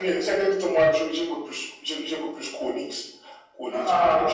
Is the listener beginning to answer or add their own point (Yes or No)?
Yes